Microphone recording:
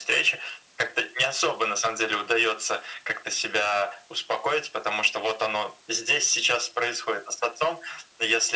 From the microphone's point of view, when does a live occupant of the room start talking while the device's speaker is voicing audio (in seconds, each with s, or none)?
none